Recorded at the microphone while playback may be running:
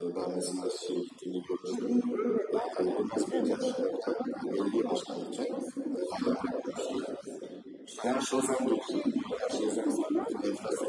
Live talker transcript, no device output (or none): Evet.